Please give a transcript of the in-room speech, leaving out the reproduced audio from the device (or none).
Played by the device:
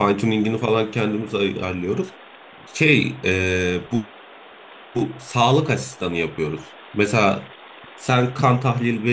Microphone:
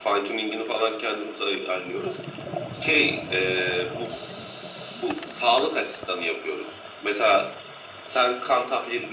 none